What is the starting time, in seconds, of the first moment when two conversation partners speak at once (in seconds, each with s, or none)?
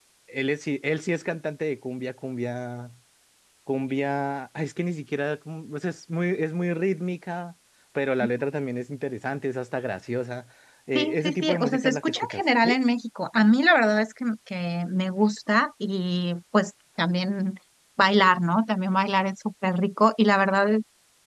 10.9 s